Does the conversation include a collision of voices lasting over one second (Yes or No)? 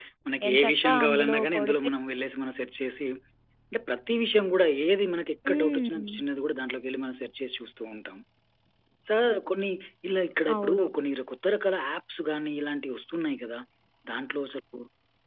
Yes